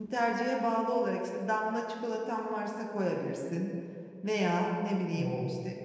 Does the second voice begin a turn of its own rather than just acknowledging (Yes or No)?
No